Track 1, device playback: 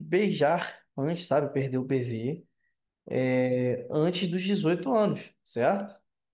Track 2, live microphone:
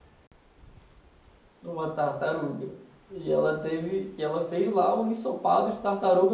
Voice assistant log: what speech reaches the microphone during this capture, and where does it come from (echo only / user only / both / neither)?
user only